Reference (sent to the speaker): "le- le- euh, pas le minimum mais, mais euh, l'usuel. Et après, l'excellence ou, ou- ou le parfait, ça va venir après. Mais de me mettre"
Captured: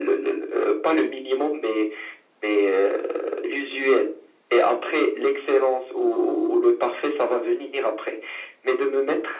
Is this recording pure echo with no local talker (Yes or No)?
Yes